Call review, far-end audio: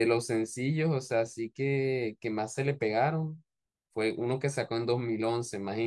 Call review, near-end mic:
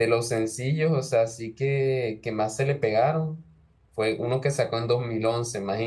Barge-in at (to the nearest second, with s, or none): none